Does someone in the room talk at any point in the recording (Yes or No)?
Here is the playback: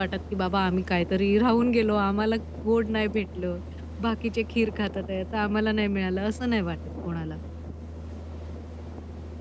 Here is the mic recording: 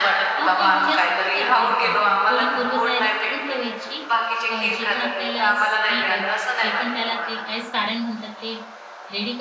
Yes